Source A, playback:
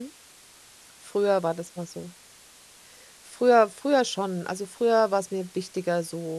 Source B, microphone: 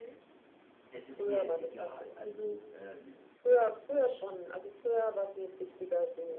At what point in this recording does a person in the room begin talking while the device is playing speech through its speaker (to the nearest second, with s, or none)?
1 s